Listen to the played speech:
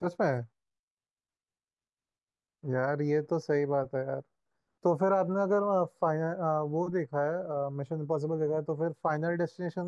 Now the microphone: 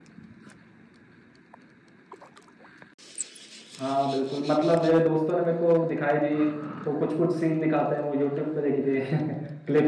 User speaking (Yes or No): Yes